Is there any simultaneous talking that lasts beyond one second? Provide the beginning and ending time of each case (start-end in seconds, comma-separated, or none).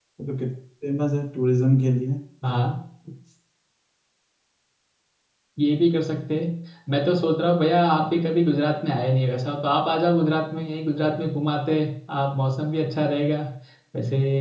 none